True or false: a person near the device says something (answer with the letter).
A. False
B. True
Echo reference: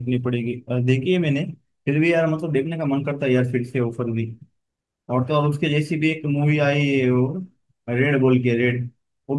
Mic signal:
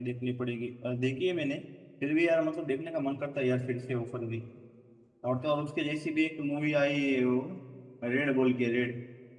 A